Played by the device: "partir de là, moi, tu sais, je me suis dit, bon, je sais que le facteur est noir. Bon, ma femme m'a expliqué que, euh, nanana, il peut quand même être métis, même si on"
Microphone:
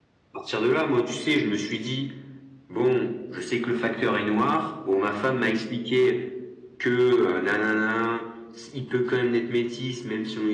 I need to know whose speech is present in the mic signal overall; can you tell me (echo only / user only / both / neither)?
echo only